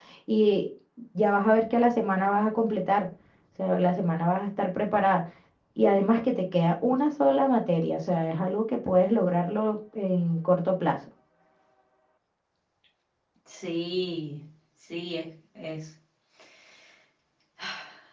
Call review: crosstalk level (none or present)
none